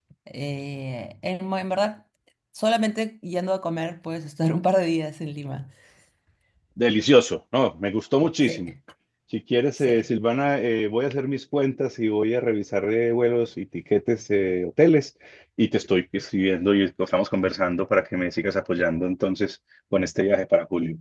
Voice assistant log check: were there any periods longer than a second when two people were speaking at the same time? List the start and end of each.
none

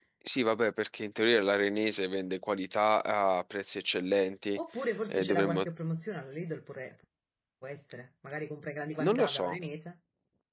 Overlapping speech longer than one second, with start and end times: none

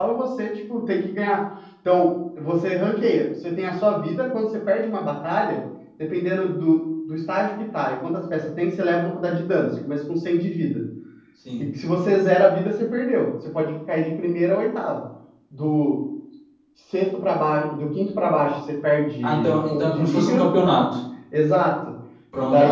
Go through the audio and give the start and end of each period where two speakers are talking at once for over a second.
19.2-20.5

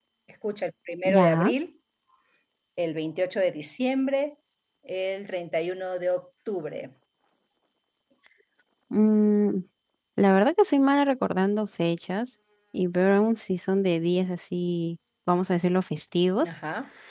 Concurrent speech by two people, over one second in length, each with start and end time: none

